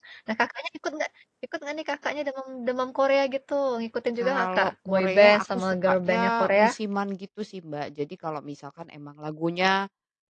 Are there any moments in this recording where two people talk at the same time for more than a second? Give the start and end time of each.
4.2-6.7

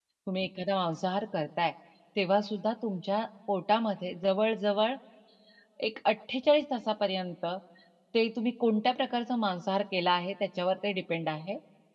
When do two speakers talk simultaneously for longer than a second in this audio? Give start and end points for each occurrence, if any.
none

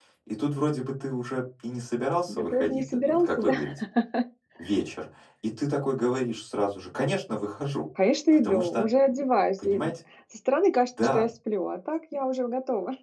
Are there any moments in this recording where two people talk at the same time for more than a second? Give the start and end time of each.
2.3-3.5

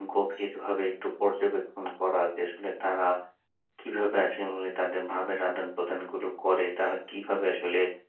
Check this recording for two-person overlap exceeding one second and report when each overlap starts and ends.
none

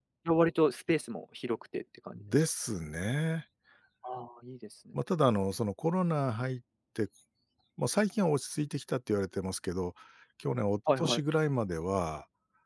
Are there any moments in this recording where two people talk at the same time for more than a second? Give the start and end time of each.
none

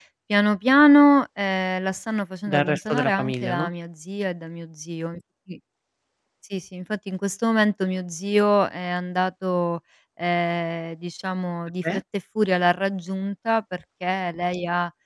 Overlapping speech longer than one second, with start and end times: 2.5-3.7

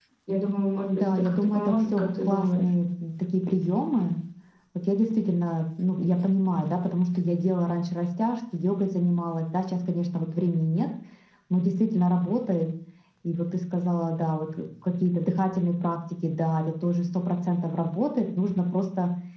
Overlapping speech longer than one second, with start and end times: 0.8-2.7

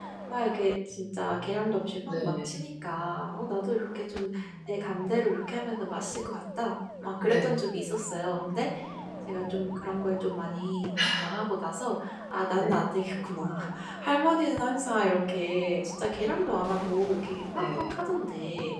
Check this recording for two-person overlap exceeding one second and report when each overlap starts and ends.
none

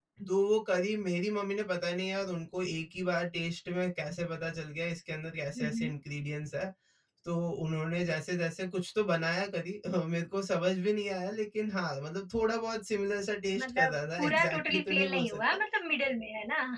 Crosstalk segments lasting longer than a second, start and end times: 13.6-15.6

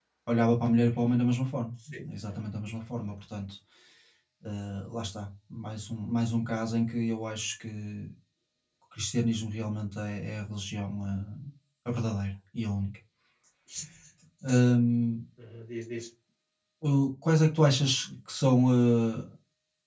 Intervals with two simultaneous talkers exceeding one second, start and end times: none

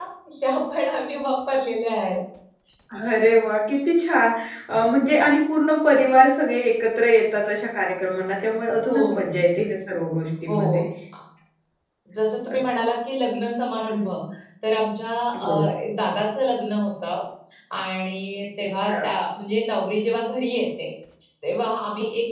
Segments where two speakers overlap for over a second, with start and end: none

